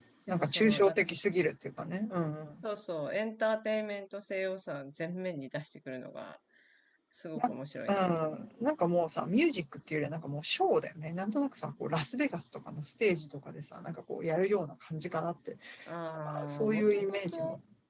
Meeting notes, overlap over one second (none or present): present